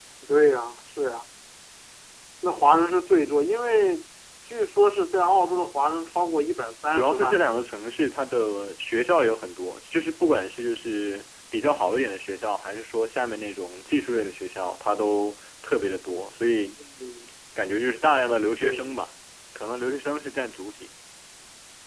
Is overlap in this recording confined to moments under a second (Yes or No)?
Yes